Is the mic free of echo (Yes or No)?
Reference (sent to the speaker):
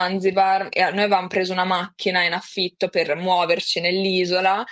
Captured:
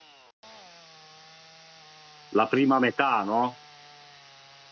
Yes